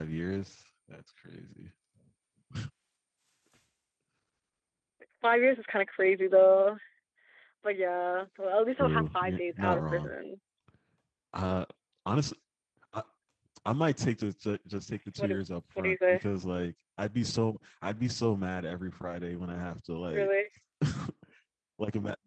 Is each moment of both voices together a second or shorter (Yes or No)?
No